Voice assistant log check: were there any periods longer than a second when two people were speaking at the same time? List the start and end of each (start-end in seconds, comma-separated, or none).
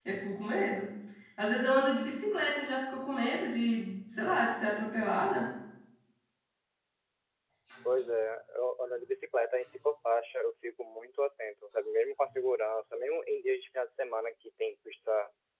none